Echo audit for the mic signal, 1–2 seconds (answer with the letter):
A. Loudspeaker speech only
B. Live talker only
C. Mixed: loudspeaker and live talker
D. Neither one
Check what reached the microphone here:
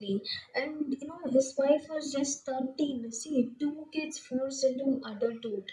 A